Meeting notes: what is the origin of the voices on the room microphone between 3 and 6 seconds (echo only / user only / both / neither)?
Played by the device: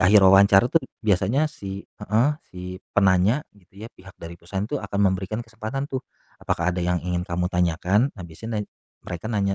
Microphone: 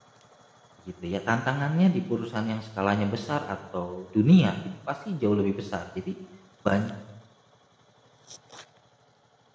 user only